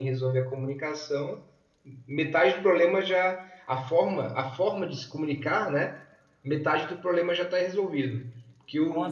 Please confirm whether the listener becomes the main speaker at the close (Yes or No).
No